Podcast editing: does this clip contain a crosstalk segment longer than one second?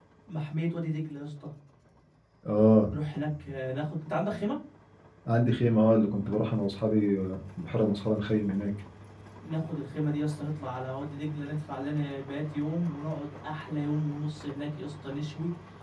No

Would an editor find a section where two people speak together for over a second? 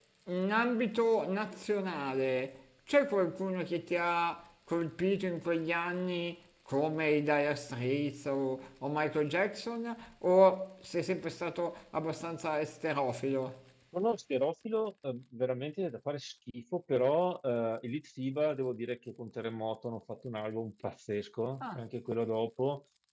No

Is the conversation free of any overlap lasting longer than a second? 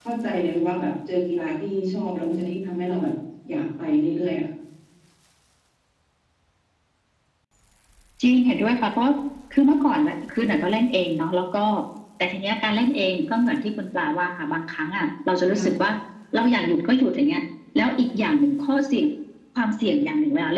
Yes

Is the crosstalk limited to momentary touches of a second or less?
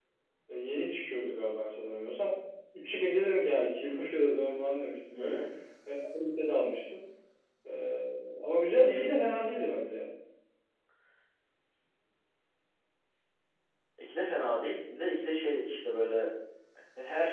Yes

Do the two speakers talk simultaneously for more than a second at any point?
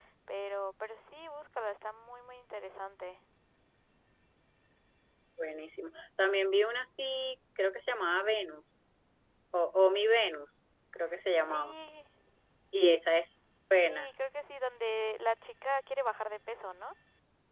No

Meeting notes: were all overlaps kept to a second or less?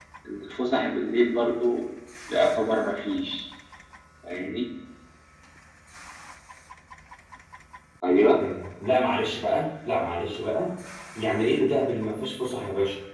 Yes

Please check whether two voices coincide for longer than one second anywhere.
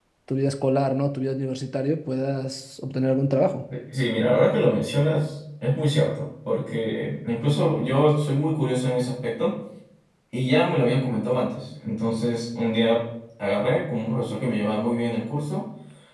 No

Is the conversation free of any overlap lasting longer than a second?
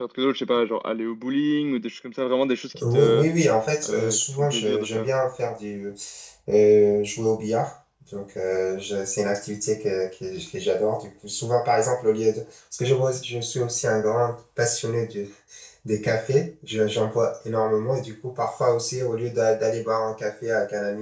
No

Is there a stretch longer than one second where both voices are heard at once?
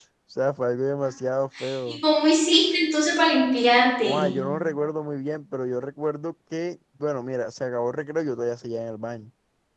No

